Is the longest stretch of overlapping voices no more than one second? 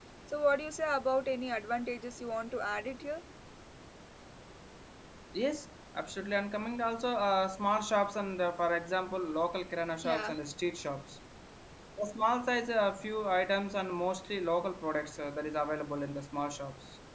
Yes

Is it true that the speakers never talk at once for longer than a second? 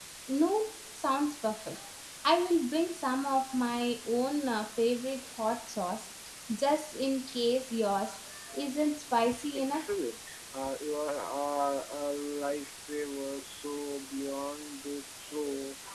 Yes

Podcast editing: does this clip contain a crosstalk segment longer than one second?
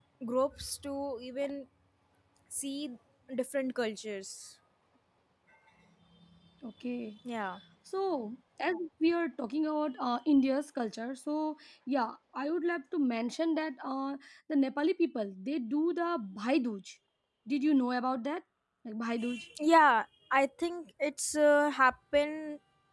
No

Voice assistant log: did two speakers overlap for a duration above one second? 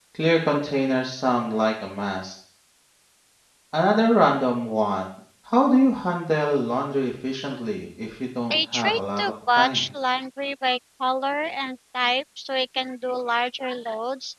Yes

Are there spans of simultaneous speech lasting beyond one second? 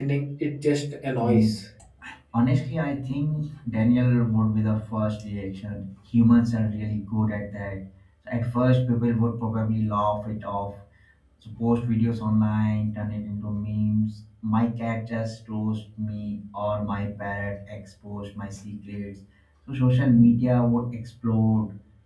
No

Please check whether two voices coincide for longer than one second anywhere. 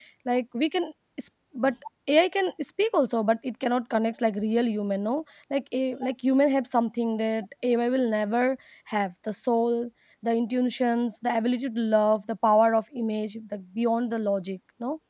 No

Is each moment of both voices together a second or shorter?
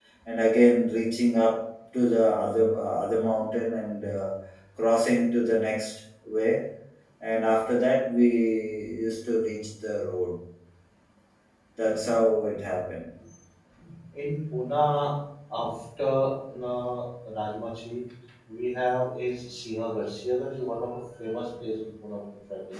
Yes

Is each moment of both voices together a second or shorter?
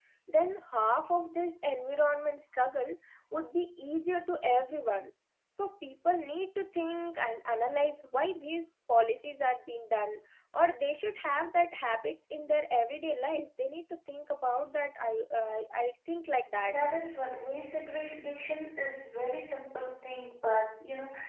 Yes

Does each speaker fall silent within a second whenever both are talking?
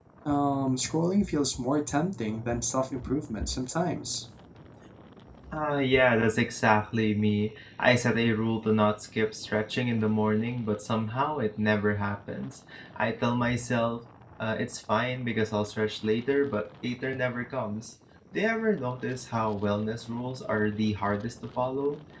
Yes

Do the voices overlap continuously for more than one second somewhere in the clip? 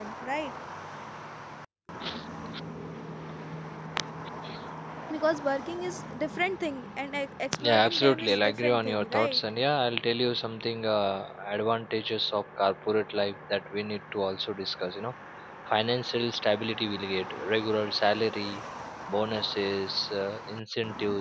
Yes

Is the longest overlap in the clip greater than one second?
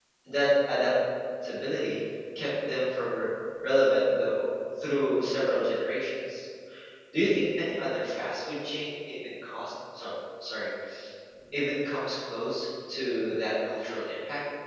No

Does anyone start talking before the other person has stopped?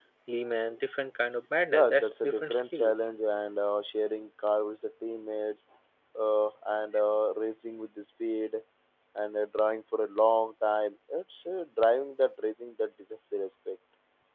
Yes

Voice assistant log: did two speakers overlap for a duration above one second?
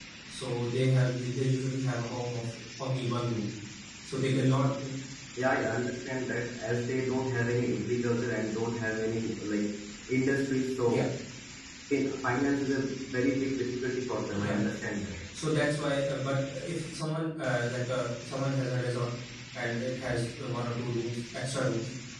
No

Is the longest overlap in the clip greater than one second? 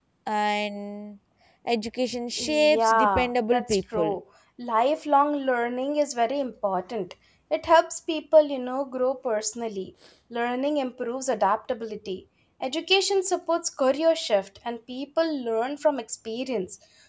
Yes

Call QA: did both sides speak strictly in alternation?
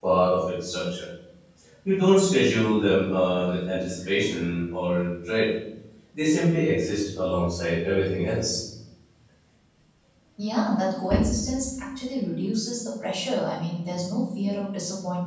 Yes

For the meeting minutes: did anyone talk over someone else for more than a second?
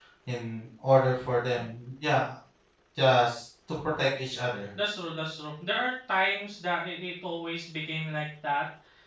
No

